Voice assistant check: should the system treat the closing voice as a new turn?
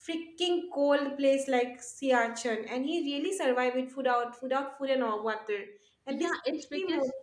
Yes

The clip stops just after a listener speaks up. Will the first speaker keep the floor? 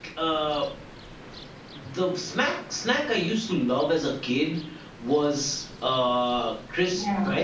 No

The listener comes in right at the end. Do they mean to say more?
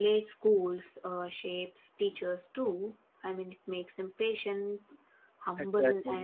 No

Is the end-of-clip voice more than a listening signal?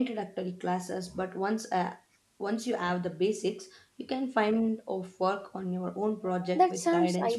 Yes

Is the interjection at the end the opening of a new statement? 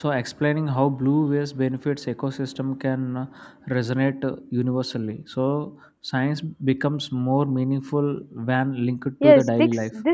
Yes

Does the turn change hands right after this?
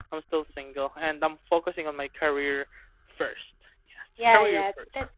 Yes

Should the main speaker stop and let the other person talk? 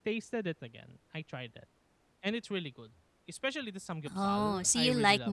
Yes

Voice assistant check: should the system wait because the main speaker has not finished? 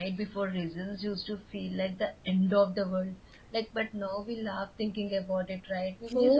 No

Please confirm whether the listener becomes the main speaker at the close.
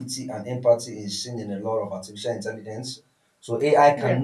No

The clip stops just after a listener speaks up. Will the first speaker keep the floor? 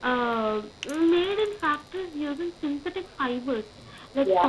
Yes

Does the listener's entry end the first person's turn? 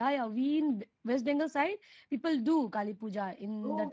Yes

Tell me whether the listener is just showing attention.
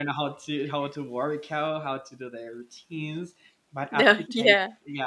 Yes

